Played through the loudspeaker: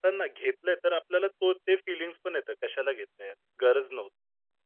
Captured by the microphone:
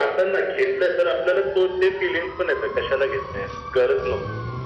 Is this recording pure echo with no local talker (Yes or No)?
Yes